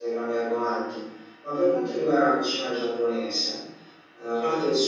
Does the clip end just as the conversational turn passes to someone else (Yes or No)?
No